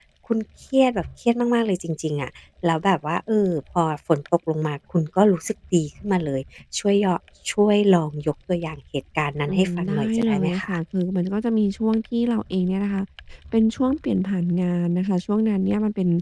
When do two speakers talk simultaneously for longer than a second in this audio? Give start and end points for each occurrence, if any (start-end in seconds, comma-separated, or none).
9.5-10.7